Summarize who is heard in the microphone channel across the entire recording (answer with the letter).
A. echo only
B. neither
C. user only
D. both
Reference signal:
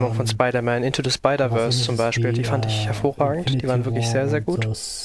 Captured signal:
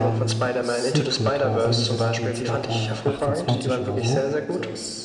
D